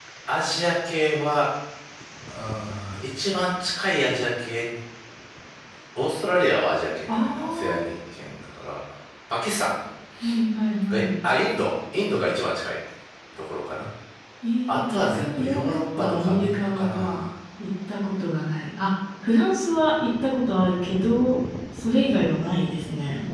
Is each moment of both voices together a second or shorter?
No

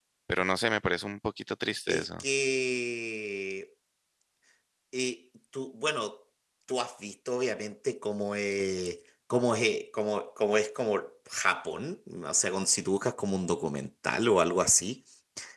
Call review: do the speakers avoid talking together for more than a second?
Yes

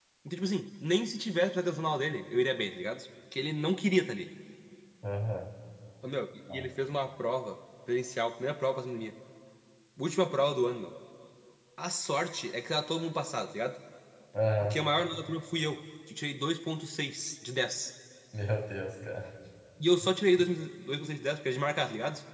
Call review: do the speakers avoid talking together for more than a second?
Yes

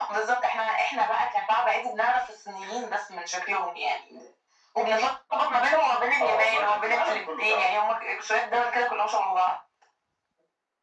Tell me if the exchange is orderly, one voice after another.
No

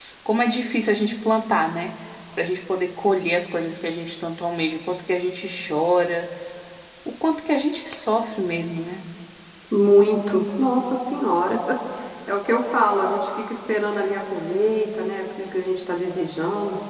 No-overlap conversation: Yes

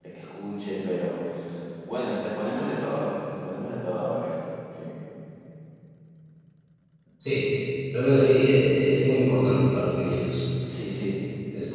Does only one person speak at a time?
Yes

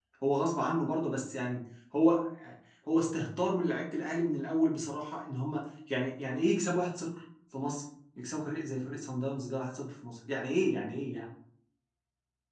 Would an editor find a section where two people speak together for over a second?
No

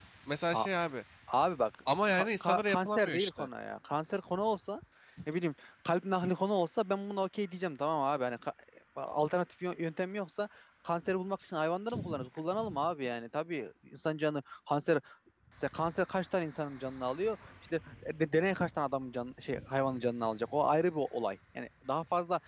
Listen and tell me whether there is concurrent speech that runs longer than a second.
Yes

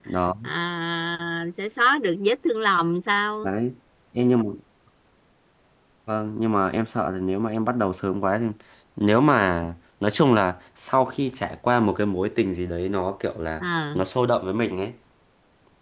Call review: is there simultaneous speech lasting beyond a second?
No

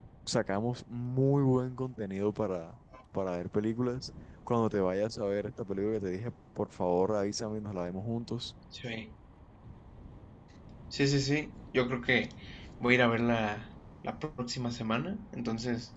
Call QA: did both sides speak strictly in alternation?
Yes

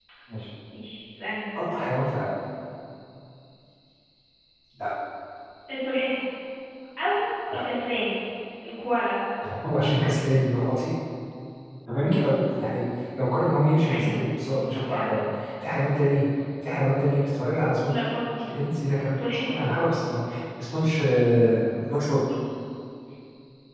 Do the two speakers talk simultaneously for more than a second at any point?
Yes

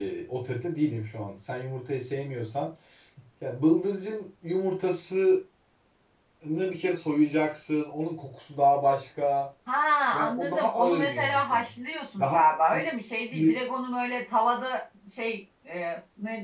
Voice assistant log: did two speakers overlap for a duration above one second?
Yes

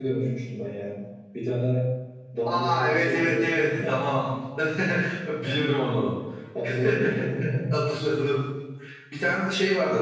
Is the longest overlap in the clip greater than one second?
Yes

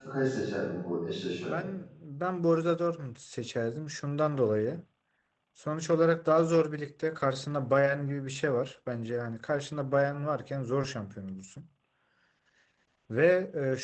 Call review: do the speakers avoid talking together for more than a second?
Yes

